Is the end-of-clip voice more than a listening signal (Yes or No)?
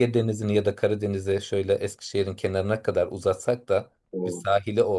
No